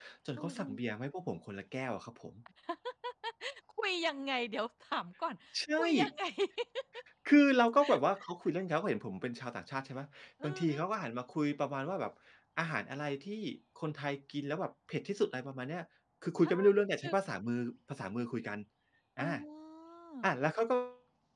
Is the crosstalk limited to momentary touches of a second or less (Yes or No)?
Yes